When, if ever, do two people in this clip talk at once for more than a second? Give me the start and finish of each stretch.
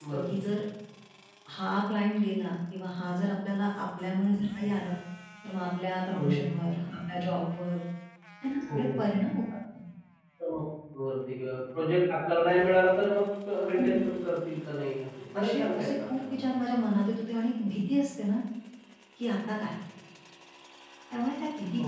15.3-16.6

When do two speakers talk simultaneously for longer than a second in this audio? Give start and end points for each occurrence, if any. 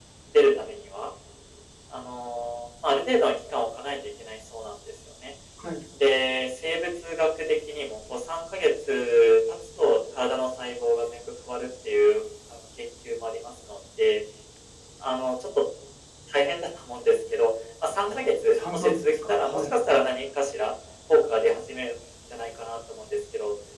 18.0-19.8

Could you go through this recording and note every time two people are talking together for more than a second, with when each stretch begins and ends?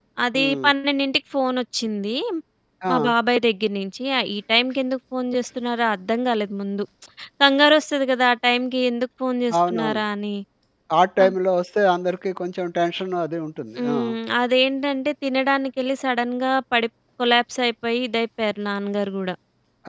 none

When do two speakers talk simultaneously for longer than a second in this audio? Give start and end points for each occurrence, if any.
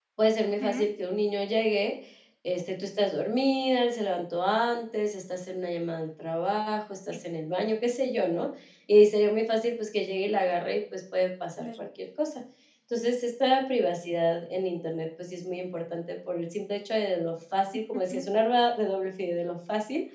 none

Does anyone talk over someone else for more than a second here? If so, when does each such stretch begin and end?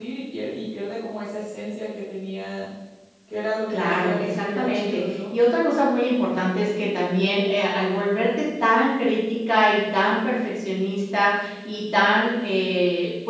3.7-5.3

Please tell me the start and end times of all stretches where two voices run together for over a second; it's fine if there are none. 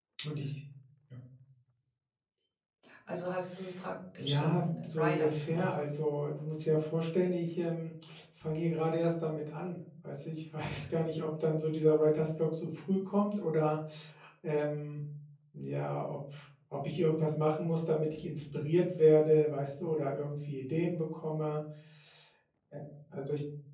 4.2-5.7

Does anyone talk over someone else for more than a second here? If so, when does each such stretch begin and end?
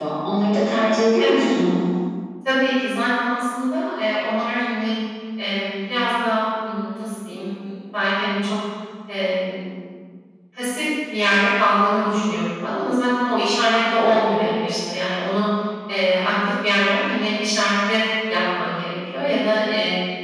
none

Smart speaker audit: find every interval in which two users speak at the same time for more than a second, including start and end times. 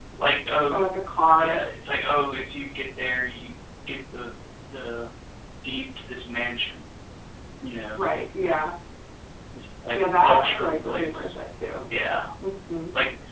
9.9-11.3

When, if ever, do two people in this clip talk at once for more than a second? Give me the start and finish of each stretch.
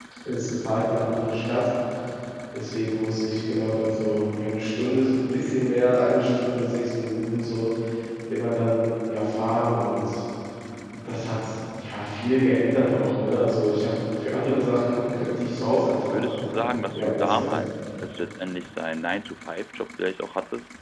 16.1-17.5

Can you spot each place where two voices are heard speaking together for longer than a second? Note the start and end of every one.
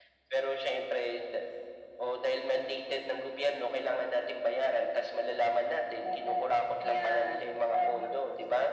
6.8-8.1

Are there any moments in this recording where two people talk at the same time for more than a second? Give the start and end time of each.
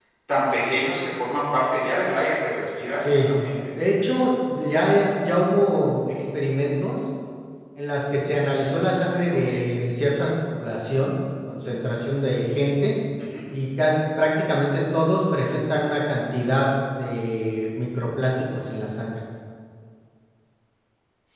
none

